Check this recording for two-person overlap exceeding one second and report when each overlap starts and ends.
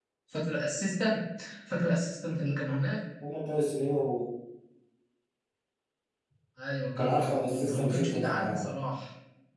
7.0-8.7

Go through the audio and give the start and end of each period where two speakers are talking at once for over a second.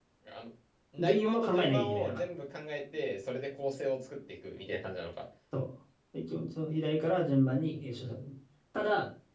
1.0-2.2

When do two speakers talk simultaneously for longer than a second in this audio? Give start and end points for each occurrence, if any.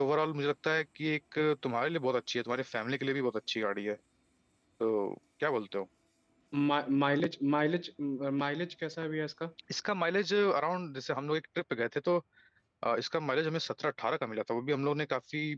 none

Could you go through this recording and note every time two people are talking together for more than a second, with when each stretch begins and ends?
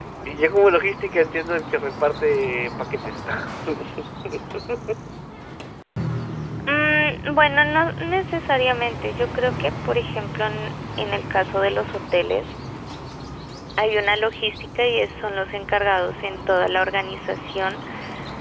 none

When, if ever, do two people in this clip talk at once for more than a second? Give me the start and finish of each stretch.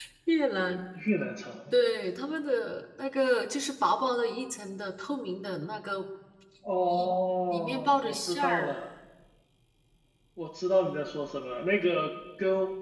7.5-8.8

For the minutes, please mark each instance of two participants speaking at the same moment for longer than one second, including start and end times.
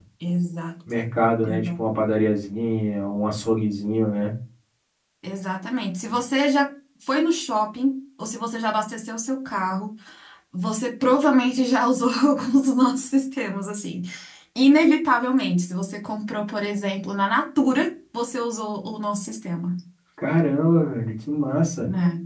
none

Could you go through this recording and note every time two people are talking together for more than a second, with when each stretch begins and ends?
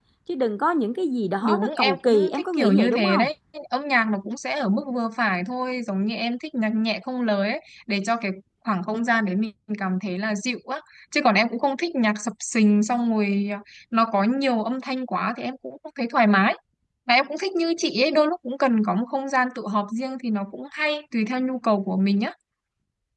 1.4-3.3

